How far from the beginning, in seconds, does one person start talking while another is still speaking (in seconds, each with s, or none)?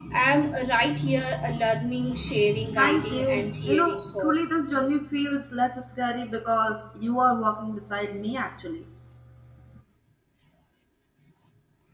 2.8 s